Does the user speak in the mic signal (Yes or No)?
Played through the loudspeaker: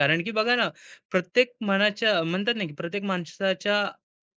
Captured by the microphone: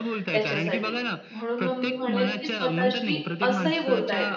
Yes